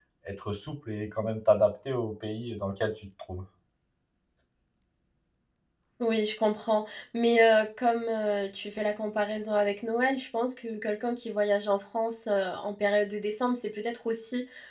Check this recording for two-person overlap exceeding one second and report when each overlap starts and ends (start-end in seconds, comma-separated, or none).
none